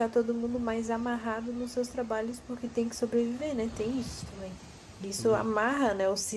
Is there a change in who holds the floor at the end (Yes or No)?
No